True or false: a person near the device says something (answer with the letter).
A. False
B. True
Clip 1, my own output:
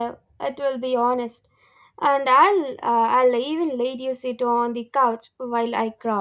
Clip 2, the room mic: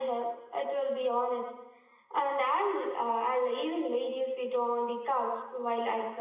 A